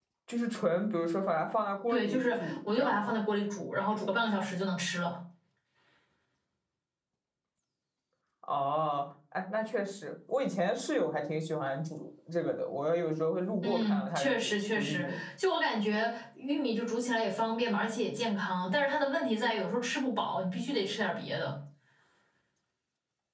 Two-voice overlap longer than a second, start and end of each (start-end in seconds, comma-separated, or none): 1.9-3.1, 13.6-15.2